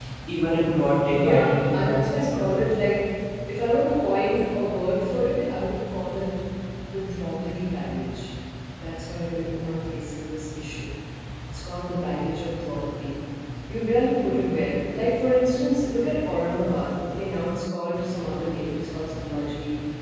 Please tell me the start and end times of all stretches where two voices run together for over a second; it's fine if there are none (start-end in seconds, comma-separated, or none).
1.1-2.5